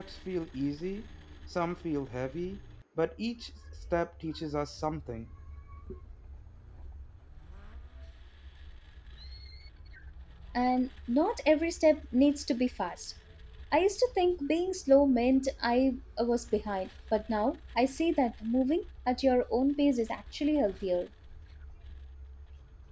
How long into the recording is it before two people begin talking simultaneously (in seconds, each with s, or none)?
none